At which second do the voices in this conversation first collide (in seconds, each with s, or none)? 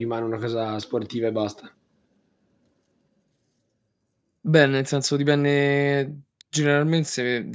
none